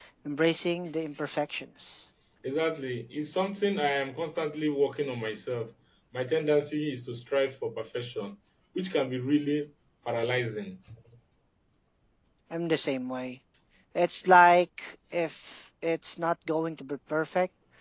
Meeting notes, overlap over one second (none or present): none